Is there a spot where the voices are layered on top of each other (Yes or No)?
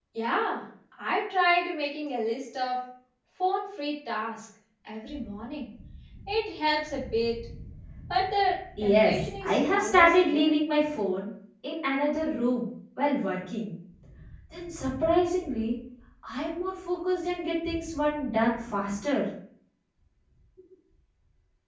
Yes